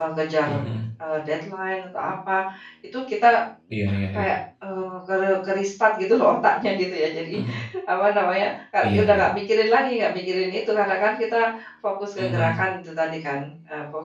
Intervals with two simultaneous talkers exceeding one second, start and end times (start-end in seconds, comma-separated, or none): none